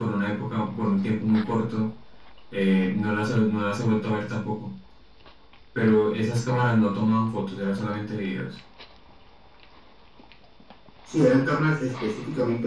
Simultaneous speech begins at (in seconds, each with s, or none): none